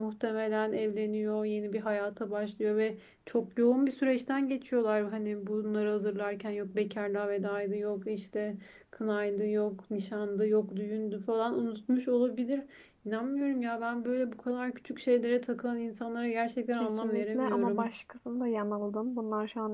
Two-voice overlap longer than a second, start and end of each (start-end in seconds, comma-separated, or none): 16.7-17.9